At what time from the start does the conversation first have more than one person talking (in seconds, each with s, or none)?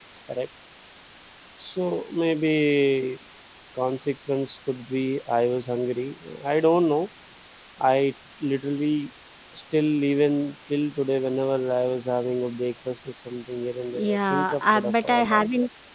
13.9 s